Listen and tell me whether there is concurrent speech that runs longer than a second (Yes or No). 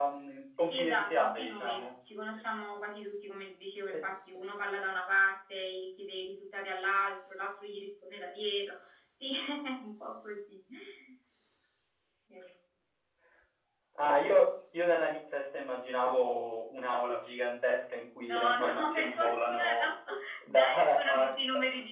Yes